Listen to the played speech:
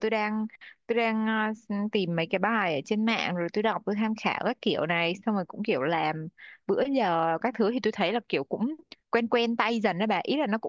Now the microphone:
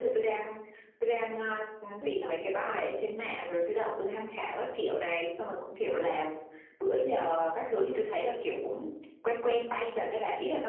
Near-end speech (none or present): present